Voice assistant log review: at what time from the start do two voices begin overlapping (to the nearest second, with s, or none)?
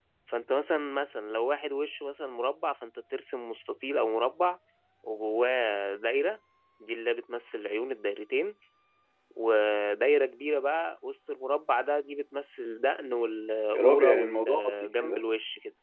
14 s